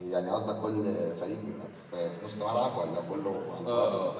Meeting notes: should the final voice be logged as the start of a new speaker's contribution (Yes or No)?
Yes